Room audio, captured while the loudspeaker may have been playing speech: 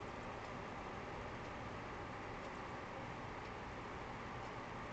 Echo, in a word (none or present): none